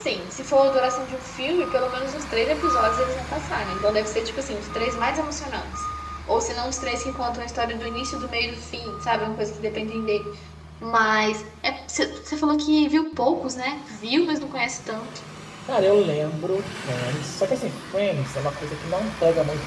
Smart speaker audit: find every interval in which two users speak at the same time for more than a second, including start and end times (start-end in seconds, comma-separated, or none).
none